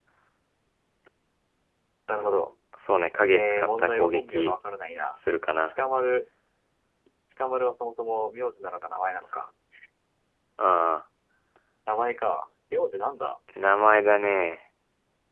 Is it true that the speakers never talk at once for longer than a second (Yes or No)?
No